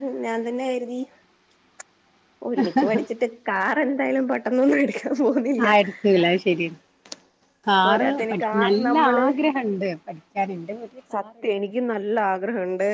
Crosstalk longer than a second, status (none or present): present